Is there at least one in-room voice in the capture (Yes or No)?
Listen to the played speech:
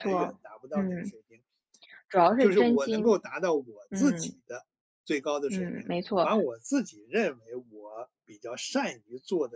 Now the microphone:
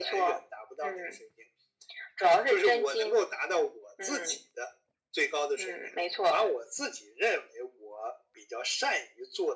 No